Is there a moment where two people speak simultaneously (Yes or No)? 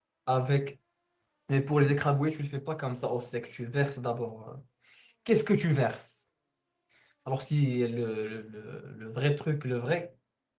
No